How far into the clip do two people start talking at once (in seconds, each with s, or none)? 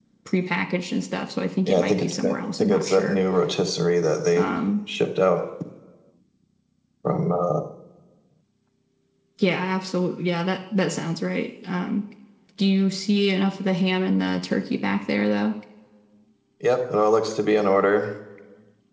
1.7 s